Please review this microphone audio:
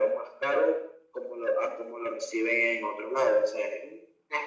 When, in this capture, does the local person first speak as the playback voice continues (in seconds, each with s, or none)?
none